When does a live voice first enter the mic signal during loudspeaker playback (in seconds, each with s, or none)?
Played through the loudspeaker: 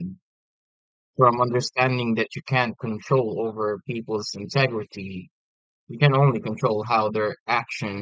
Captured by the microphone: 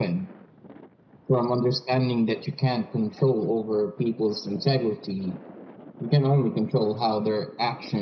none